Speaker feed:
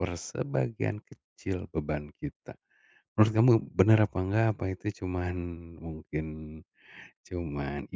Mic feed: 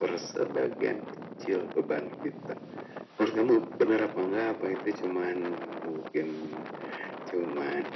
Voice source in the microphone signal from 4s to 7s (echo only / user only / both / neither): echo only